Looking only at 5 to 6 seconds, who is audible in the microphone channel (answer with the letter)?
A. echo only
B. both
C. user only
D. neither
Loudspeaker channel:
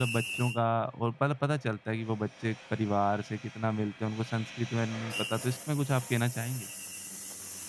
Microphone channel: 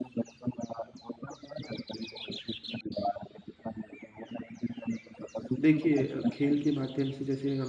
B